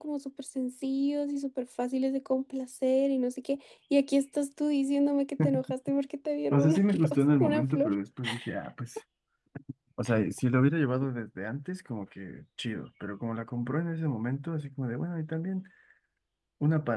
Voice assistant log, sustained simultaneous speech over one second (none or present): present